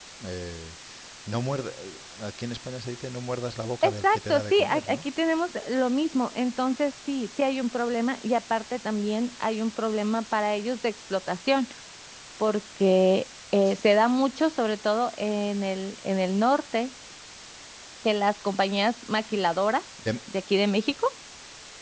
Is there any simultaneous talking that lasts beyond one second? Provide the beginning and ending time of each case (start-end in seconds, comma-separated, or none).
3.8-5.0